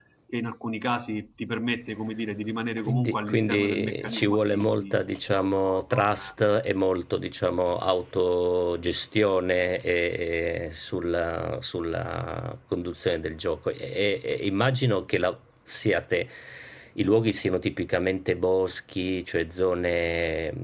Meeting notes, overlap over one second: present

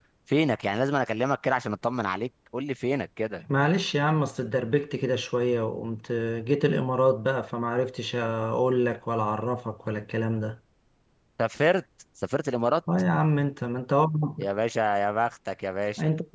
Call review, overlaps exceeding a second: none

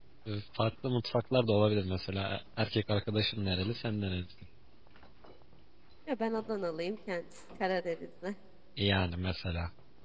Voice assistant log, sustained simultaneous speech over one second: none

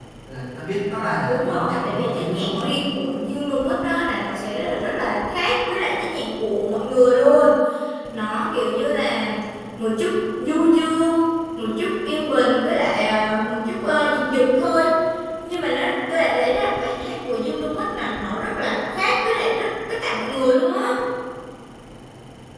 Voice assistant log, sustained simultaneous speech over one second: present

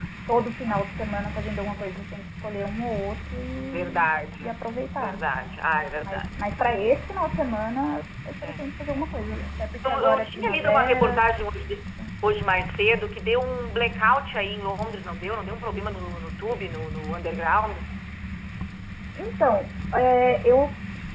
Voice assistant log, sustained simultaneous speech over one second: present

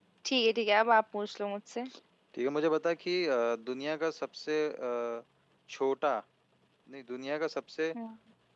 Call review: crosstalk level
none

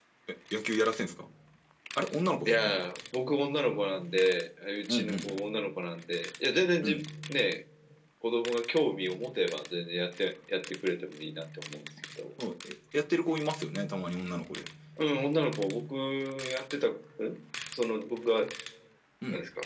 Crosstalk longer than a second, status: none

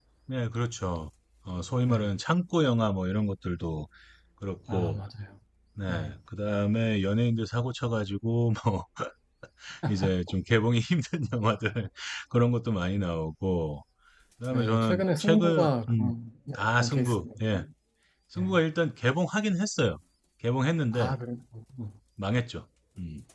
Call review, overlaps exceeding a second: present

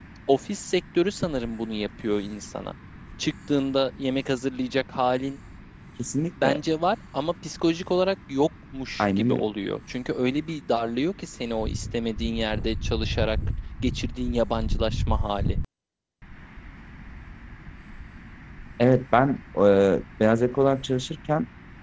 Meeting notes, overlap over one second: none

